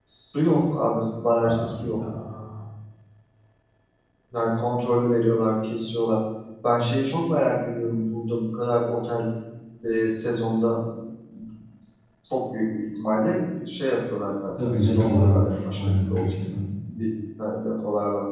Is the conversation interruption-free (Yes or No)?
No